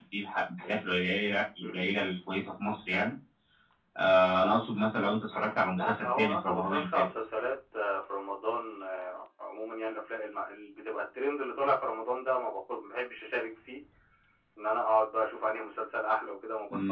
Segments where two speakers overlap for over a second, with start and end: 5.8-7.0

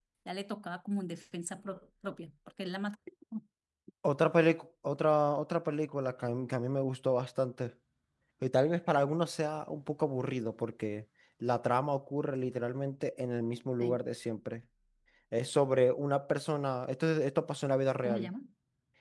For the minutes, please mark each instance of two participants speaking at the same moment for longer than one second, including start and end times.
none

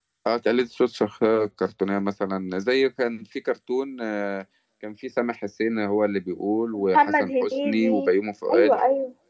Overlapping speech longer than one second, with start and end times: 6.8-8.0

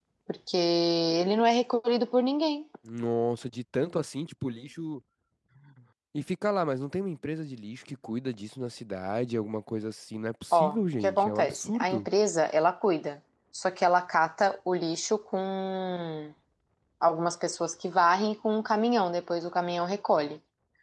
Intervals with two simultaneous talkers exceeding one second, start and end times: 10.5-12.1

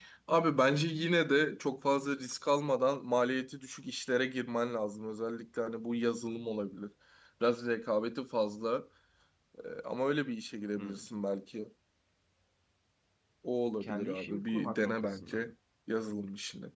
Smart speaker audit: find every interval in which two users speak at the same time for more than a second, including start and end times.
13.8-15.5

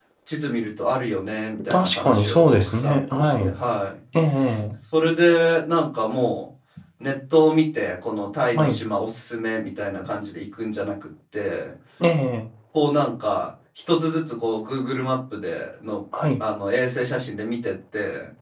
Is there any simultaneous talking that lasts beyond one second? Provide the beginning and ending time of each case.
1.7-3.3

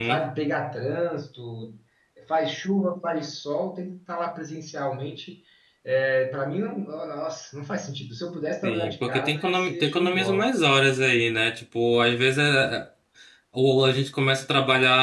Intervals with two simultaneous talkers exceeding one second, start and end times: 8.6-10.5

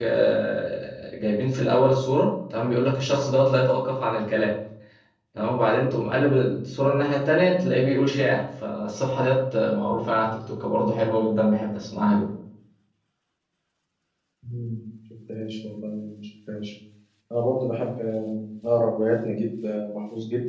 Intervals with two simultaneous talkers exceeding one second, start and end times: none

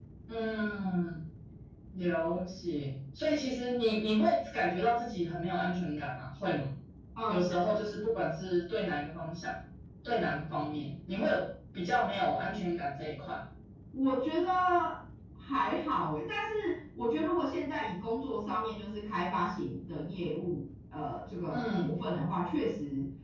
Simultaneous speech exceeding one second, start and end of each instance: none

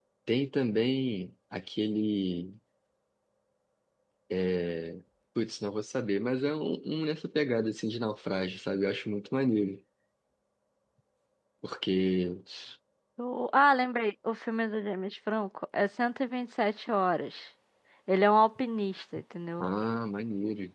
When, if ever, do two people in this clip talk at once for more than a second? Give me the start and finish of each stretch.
none

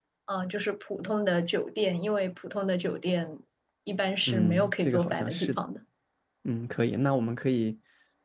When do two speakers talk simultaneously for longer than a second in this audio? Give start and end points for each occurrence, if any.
4.3-5.7

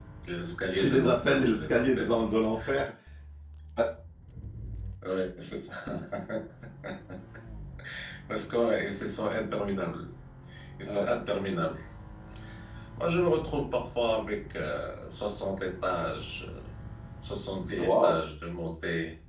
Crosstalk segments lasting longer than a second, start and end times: 0.7-2.3

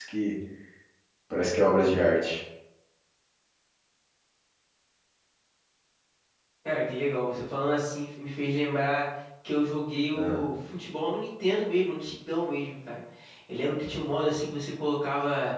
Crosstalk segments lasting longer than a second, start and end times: none

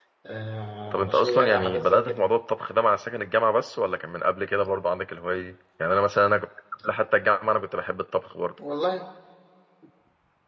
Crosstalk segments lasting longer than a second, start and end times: 0.9-2.2

